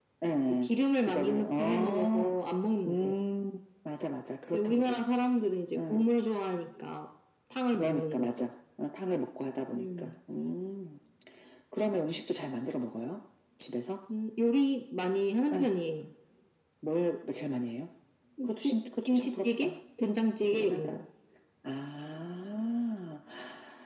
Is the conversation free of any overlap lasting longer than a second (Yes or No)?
No